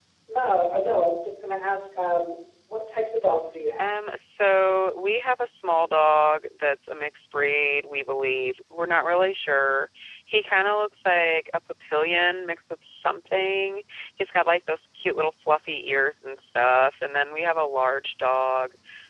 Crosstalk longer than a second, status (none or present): none